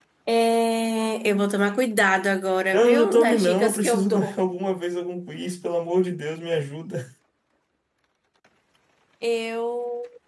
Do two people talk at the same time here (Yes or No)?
Yes